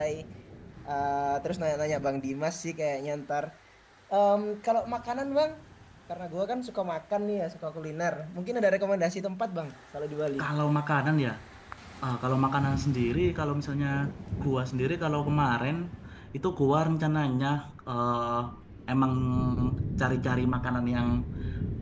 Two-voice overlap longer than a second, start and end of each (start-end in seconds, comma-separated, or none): none